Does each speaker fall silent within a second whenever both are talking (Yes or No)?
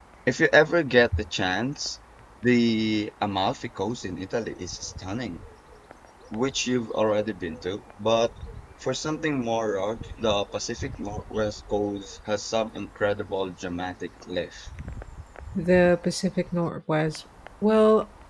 Yes